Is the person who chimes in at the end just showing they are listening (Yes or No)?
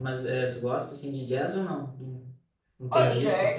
No